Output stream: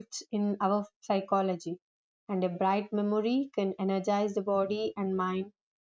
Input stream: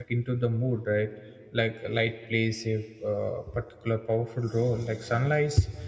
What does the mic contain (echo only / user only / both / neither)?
user only